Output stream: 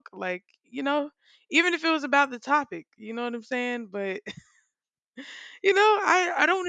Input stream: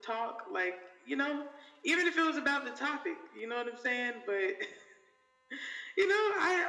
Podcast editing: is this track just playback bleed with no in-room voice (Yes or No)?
Yes